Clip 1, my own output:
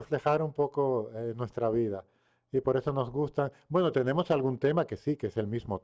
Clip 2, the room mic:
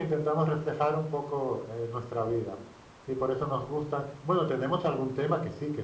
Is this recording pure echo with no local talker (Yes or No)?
Yes